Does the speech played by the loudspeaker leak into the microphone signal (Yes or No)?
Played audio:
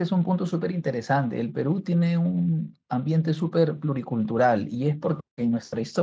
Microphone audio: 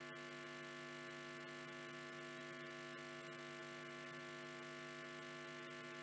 No